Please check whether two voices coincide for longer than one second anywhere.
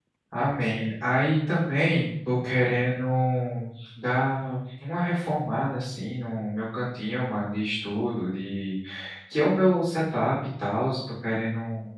No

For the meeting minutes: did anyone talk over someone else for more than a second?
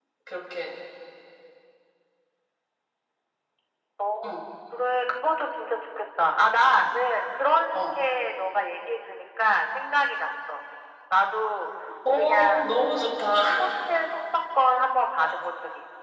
No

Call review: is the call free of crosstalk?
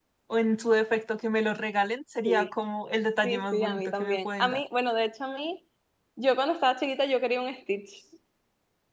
No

